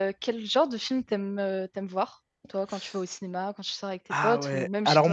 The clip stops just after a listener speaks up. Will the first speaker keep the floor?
No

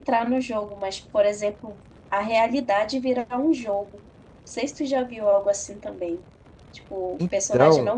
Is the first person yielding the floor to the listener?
No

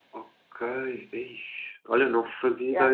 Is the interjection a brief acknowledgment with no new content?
Yes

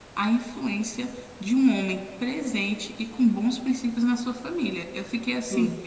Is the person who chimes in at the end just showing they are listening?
Yes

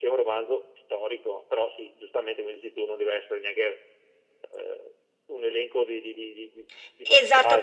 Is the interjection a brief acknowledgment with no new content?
No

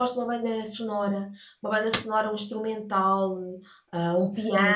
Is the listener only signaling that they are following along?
No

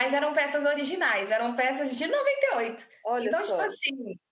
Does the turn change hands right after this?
No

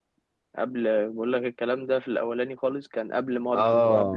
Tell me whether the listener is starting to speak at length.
Yes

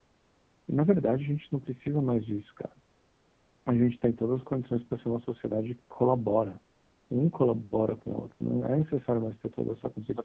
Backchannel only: No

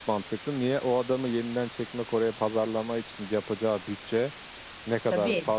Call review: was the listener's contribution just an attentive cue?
Yes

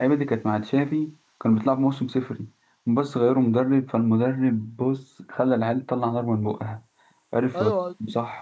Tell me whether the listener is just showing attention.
No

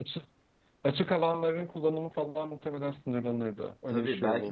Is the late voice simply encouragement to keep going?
No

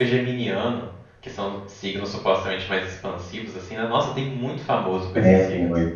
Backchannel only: No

